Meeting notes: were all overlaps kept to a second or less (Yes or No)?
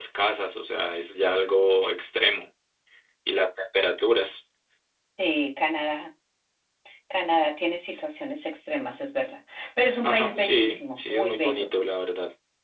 No